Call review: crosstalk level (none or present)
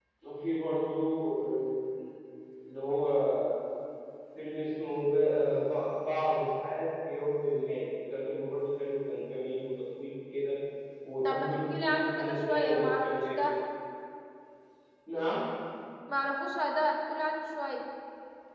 present